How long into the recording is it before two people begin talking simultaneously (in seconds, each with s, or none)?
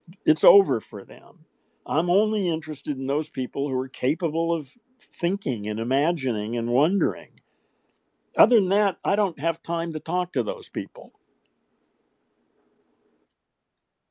none